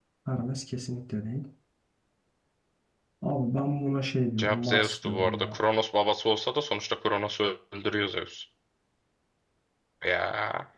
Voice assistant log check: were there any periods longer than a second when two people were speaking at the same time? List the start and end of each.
4.4-5.6

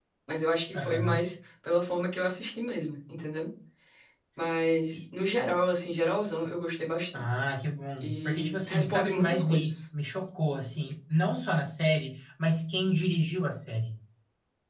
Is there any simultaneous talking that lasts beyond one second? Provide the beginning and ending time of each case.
8.0-9.8

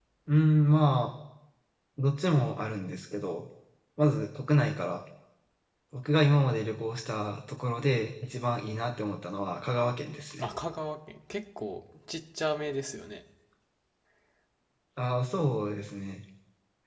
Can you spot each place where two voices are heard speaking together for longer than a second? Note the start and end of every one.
none

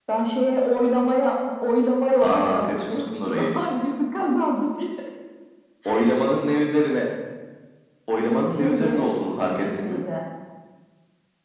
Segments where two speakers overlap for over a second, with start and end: 2.2-3.6, 8.5-10.0

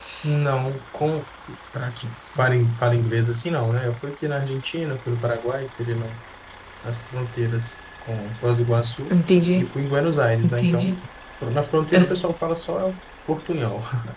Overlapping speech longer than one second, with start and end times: none

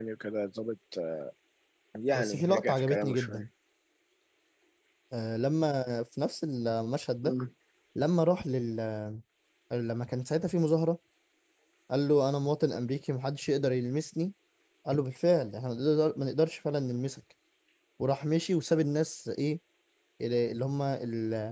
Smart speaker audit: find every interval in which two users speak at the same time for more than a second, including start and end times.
2.1-3.4

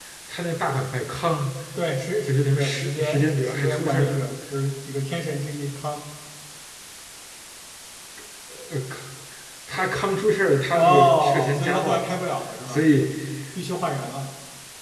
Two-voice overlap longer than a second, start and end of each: 2.3-4.2, 10.8-12.0

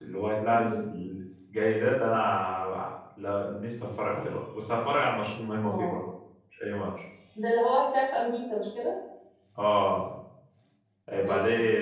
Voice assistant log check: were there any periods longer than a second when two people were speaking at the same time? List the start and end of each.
none

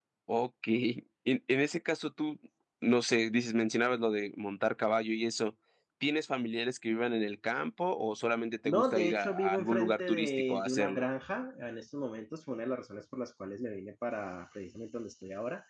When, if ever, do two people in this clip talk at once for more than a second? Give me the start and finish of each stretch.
8.6-11.0

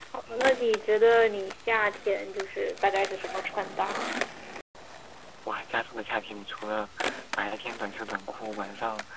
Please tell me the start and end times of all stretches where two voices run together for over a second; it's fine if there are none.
none

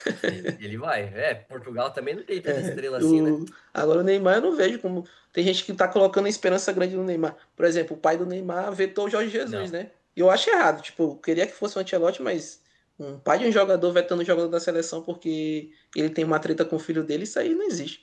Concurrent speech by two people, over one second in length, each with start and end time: none

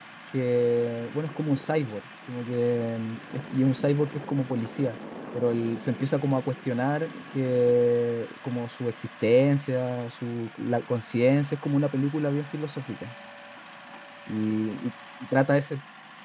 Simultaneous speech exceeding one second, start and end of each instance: none

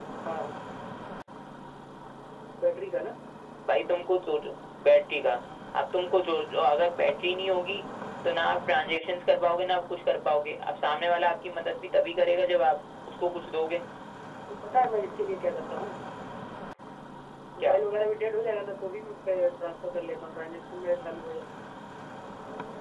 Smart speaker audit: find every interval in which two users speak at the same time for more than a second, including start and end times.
none

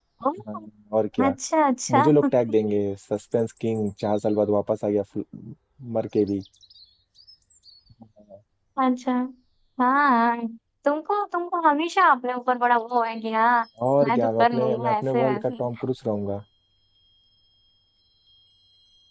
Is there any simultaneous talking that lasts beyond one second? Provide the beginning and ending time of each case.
14.0-15.5

